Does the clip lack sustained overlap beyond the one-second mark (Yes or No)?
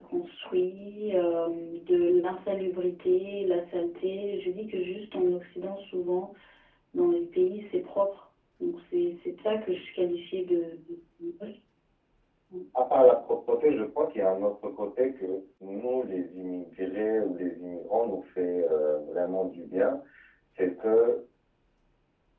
Yes